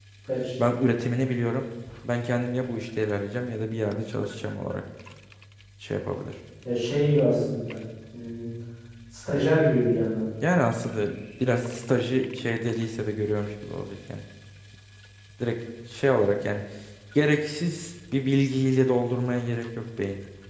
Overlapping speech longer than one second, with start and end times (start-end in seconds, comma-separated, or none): none